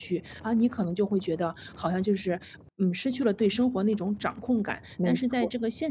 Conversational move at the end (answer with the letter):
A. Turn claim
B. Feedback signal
B